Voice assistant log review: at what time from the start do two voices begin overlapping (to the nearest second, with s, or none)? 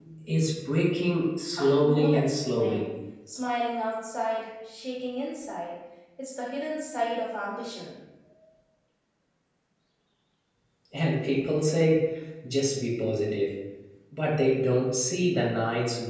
2 s